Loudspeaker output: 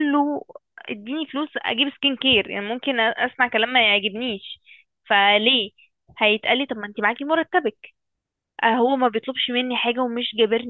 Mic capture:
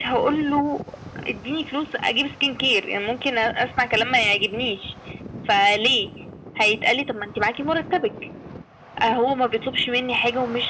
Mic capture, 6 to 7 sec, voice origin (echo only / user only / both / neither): echo only